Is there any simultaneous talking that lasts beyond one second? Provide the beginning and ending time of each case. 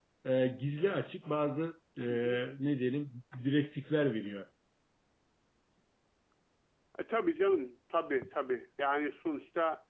none

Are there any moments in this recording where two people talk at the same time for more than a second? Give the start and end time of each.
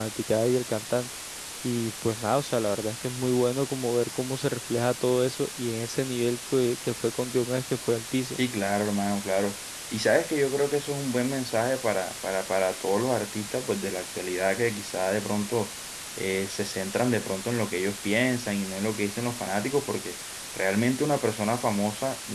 none

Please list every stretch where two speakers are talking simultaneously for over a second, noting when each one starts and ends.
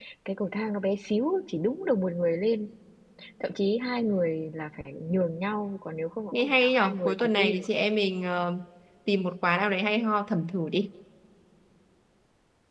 6.4-7.7

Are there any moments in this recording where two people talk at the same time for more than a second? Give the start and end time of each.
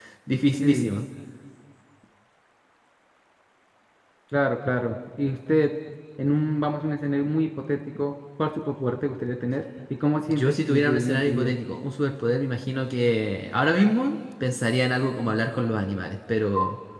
10.3-11.5

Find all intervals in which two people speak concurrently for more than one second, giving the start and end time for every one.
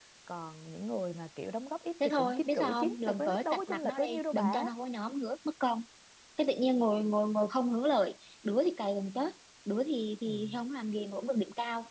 2.0-4.7

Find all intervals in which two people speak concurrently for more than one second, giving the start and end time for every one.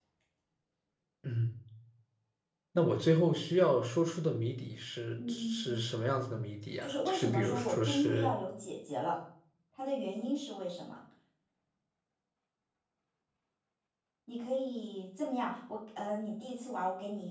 6.8-8.3

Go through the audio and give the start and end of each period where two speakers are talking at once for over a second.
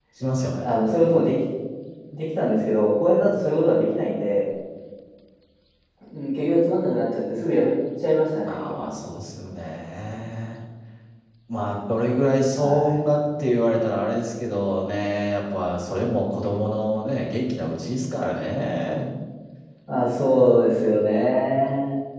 none

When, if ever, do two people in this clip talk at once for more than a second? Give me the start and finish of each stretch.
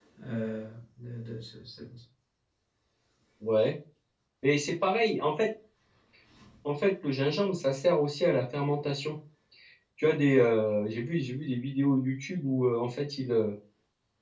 none

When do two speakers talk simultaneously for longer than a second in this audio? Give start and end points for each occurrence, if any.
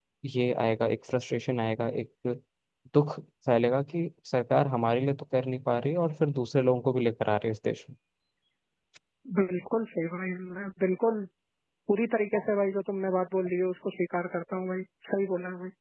none

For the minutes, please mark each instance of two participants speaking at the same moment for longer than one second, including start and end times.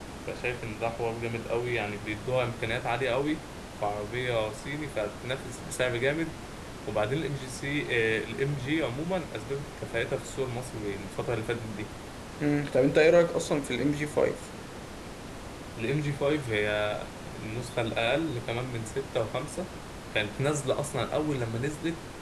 none

